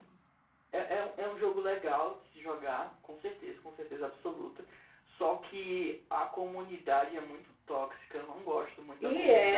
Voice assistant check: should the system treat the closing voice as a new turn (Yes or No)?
Yes